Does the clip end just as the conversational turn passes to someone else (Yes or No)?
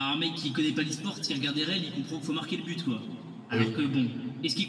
No